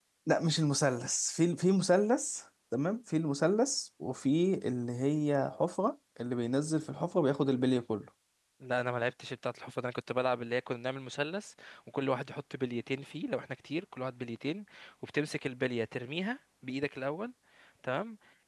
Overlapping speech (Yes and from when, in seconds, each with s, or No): No